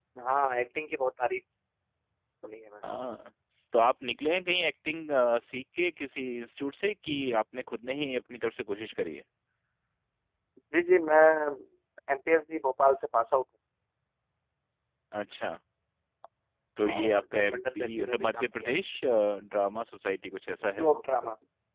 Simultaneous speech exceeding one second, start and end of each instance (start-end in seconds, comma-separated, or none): 16.9-18.7